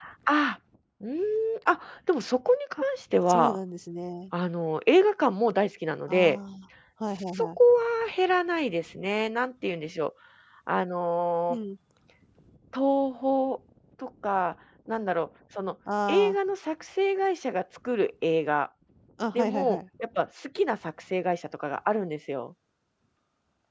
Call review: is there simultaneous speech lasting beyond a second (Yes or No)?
No